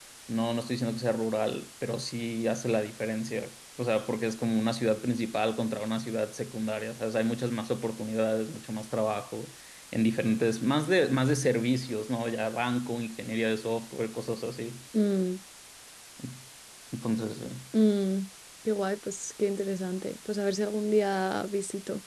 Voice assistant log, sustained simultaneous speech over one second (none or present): none